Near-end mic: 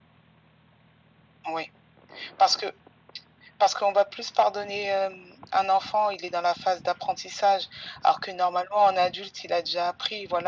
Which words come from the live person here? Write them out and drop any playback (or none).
none